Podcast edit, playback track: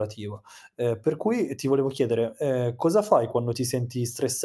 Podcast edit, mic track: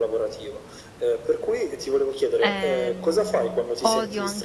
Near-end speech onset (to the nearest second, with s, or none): 2 s